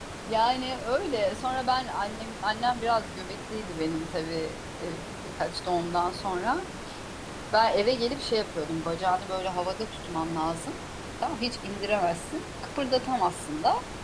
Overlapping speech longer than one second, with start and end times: none

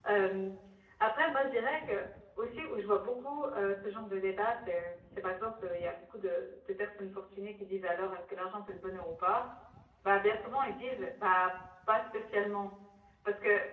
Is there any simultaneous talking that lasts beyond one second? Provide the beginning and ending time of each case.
none

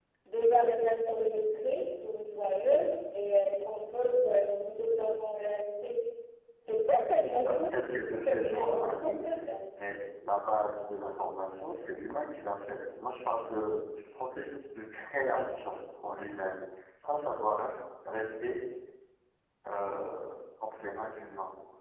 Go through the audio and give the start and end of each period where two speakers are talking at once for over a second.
8.2-9.5

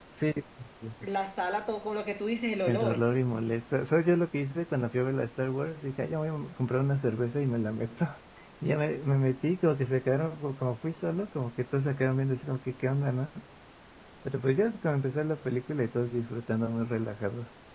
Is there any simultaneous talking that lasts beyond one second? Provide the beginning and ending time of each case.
none

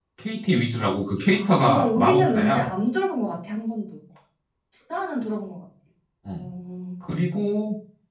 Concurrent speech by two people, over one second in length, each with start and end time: 1.3-2.6

